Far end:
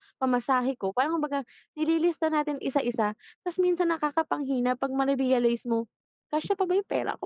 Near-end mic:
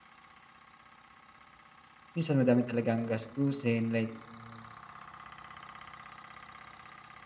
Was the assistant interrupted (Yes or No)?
Yes